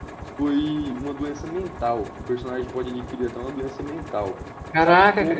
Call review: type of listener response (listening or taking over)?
taking over